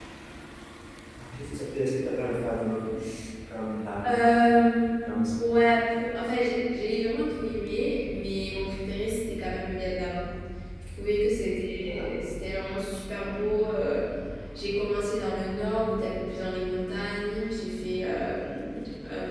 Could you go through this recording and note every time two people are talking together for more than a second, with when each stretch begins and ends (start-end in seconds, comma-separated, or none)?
none